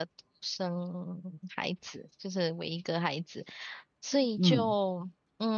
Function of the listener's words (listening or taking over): listening